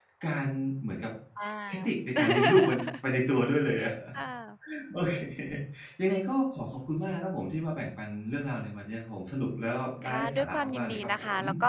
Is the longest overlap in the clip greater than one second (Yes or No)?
Yes